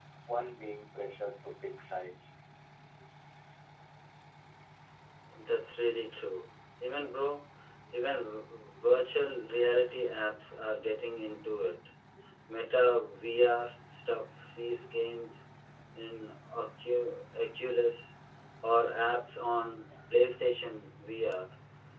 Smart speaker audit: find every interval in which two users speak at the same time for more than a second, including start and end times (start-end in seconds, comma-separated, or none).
none